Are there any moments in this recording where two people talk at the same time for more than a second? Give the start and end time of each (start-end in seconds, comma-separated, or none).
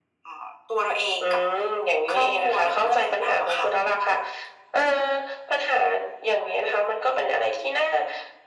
2.1-3.7